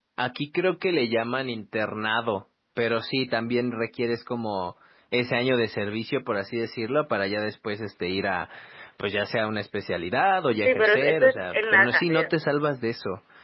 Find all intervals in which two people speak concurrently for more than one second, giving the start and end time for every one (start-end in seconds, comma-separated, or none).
10.7-12.3